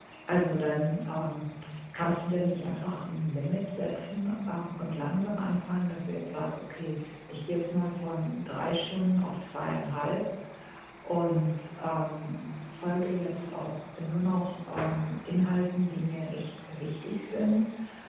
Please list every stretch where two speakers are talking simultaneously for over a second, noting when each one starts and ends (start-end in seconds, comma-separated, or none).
none